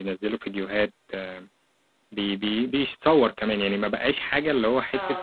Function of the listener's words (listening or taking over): listening